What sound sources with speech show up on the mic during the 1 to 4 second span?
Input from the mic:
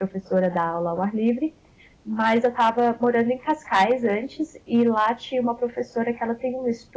user only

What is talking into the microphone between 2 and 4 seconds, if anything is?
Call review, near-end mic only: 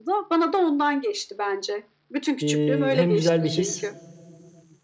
both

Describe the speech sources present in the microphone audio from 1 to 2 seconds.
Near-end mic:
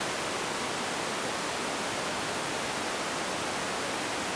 neither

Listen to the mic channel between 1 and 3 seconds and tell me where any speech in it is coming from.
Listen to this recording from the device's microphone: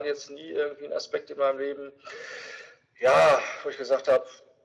echo only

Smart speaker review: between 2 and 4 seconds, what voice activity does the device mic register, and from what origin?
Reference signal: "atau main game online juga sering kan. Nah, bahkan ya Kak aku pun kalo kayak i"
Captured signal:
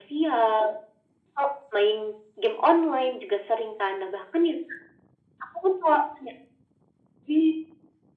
echo only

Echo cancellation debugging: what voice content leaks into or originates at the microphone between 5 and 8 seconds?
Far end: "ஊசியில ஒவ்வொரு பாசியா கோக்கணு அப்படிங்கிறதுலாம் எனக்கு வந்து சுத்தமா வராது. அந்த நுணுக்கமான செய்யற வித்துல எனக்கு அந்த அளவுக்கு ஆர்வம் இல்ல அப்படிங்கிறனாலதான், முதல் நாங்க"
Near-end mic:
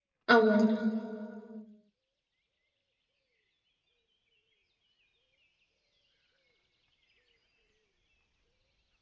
neither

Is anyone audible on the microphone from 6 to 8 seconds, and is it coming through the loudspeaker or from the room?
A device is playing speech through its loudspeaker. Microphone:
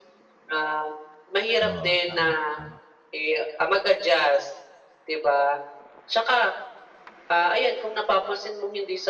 echo only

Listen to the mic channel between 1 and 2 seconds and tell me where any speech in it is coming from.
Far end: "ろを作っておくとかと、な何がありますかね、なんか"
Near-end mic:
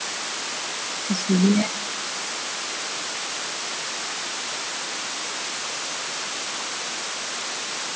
user only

